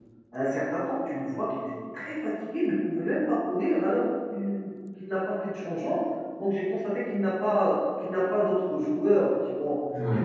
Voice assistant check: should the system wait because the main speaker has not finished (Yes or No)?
Yes